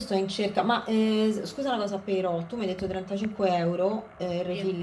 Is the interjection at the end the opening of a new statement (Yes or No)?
No